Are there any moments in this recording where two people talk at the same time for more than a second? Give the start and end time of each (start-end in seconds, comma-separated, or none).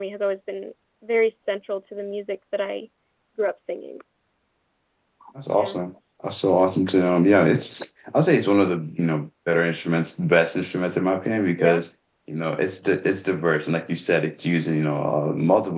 none